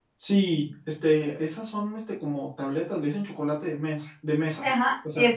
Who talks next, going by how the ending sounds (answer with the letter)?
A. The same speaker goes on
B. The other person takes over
B